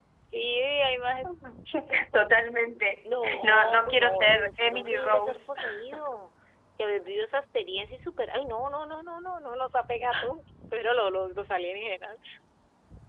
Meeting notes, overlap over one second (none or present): present